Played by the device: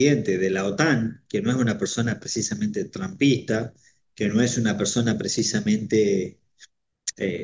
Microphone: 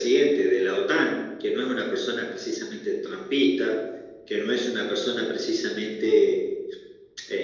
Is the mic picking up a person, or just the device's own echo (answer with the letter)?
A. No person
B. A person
A